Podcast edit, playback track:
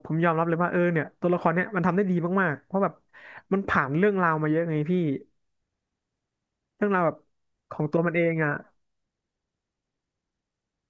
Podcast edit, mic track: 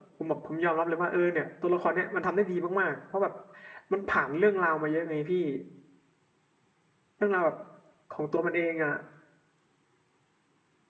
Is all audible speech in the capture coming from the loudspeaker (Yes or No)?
Yes